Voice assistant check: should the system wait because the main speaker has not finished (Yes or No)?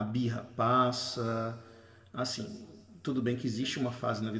Yes